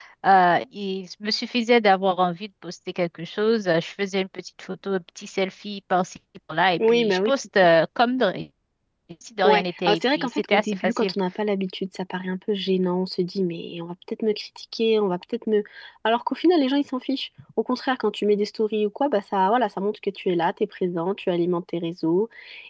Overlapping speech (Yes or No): Yes